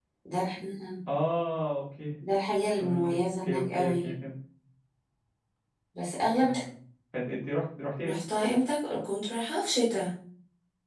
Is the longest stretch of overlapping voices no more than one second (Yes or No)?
No